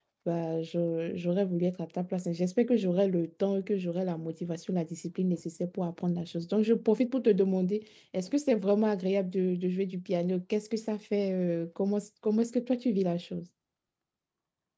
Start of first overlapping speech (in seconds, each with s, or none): none